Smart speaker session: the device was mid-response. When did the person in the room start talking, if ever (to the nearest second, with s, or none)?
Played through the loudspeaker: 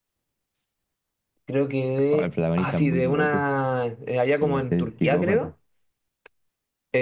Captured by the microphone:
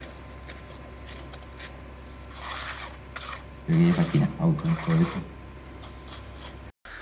4 s